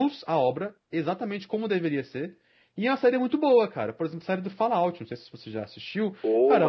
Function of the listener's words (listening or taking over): listening